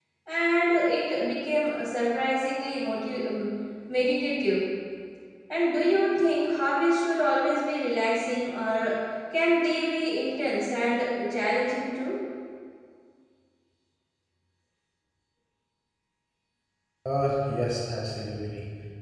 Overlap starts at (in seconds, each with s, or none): none